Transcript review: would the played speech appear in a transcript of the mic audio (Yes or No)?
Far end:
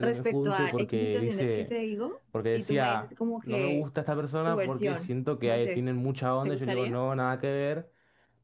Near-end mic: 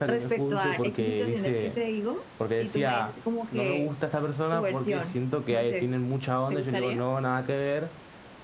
Yes